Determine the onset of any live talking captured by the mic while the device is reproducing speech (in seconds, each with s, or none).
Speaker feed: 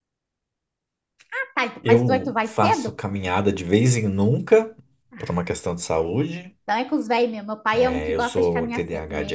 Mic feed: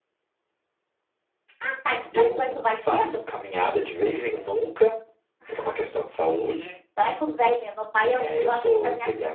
none